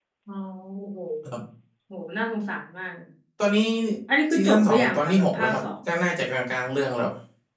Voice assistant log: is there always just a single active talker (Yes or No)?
No